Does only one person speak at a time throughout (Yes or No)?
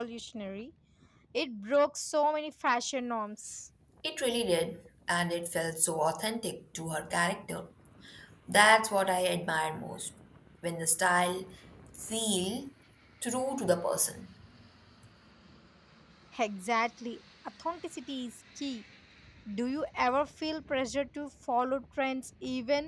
Yes